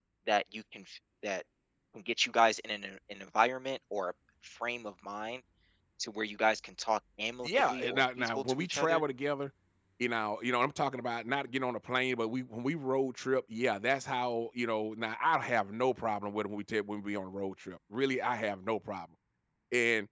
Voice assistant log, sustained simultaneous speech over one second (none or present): present